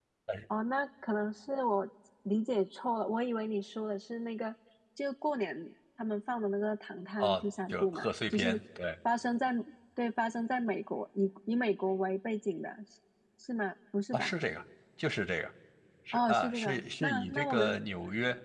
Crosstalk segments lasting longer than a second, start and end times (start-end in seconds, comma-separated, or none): 7.2-8.6, 16.1-17.7